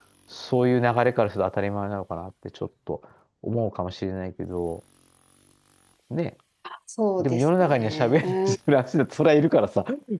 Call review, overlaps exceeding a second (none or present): present